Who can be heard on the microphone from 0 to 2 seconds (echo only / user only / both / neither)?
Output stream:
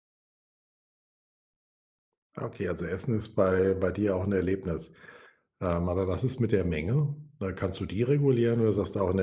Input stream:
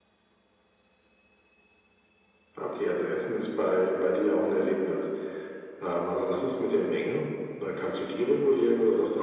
neither